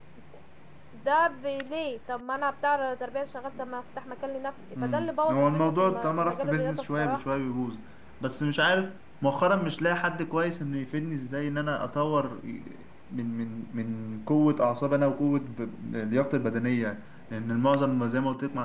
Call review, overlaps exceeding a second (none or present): present